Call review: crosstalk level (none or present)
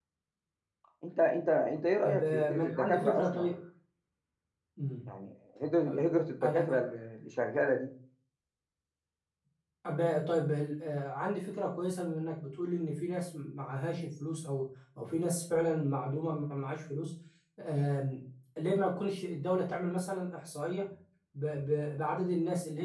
present